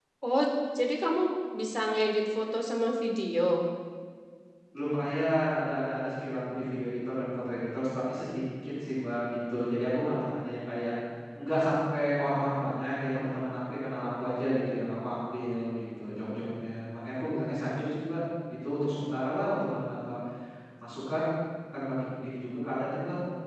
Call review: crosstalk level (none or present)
none